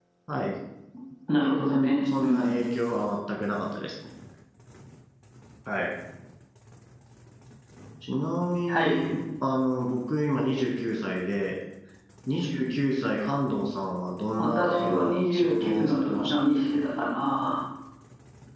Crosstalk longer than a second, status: present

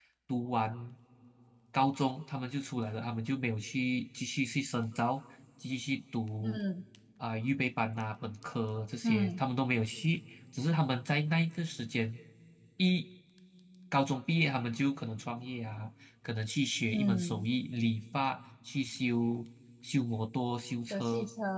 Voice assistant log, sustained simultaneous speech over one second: none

